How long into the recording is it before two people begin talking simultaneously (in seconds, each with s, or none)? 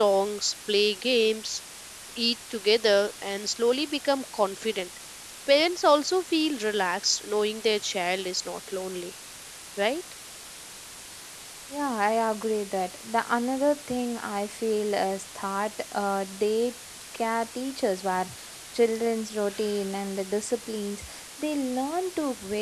none